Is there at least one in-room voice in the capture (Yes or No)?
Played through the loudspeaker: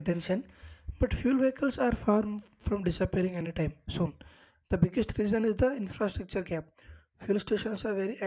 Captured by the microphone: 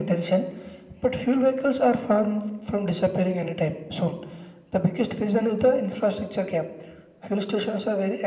No